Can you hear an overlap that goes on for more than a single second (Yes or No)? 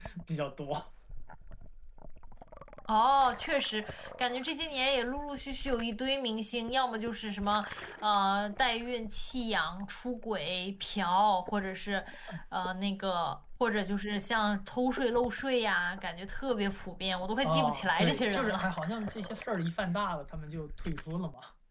Yes